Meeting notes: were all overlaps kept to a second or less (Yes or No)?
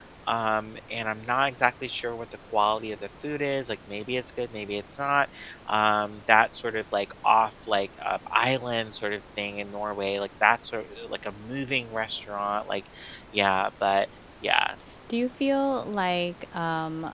Yes